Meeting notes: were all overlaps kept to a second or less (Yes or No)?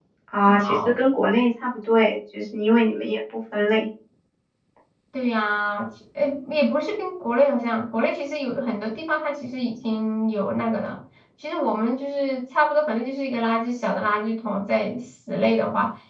Yes